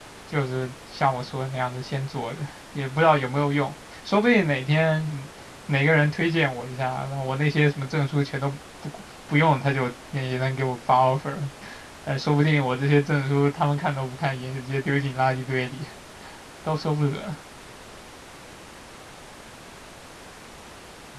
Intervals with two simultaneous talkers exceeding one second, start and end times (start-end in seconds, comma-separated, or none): none